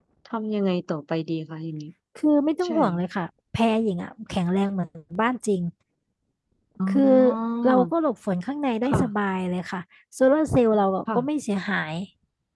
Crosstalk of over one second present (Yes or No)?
No